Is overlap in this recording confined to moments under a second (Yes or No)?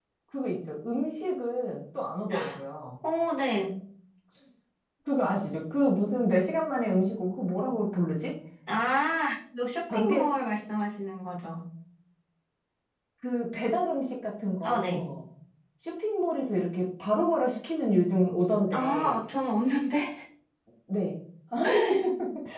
Yes